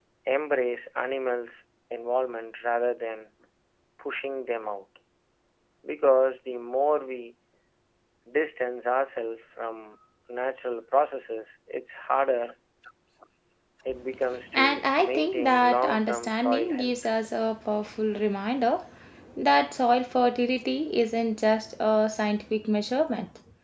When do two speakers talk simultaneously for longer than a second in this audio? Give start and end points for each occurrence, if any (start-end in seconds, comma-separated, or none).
14.5-17.0